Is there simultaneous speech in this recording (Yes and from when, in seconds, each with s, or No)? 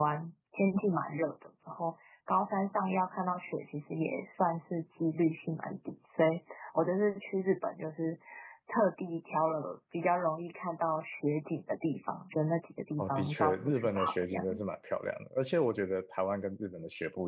Yes, from 13.0 s